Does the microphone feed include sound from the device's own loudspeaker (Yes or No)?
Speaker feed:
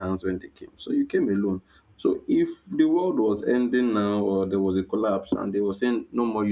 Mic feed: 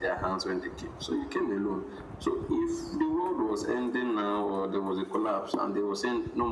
Yes